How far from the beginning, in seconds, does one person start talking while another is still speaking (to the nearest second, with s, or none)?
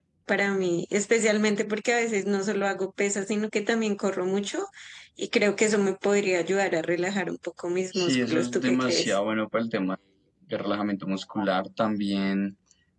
8 s